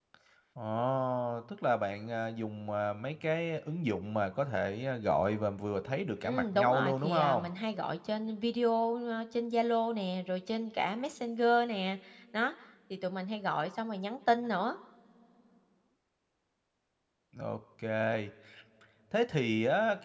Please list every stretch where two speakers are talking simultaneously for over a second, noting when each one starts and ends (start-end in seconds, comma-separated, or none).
6.2-7.5